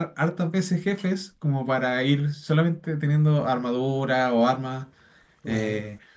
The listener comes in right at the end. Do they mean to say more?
No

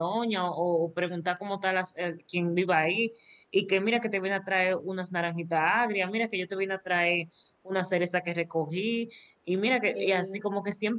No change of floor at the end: Yes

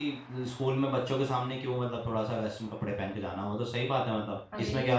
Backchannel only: No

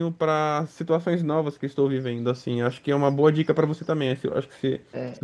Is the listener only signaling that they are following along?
No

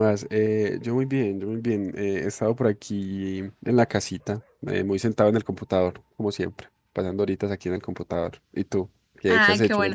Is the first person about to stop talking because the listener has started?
Yes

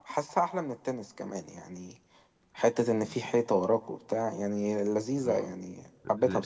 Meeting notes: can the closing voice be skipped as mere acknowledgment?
No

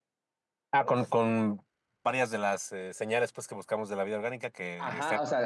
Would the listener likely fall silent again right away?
No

